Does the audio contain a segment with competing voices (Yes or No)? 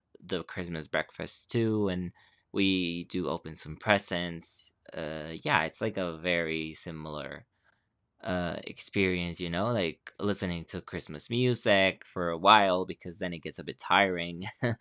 No